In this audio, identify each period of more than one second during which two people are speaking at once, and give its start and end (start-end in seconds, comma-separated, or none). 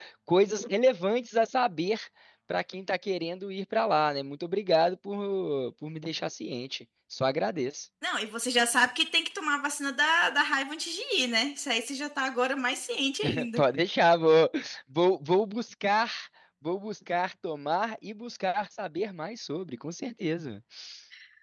none